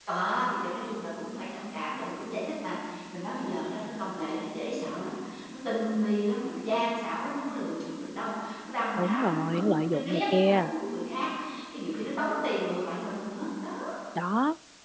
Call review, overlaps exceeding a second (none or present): present